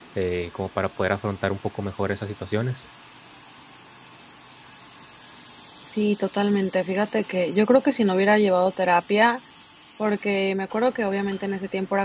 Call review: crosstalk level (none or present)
none